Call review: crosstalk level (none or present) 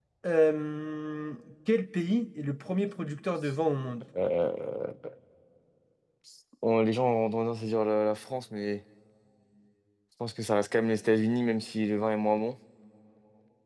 none